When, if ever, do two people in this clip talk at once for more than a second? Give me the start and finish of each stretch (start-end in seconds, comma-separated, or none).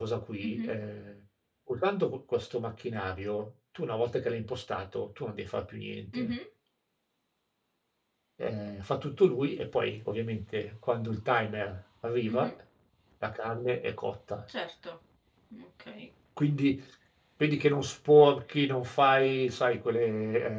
none